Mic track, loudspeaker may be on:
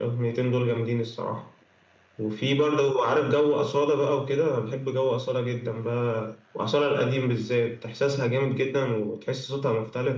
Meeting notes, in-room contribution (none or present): none